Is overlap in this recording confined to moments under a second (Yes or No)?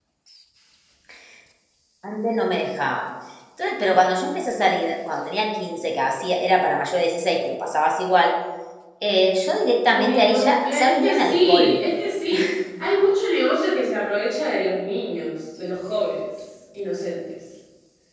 No